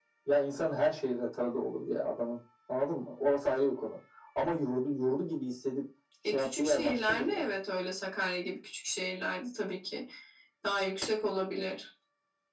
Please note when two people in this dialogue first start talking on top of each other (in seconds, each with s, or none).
6.2 s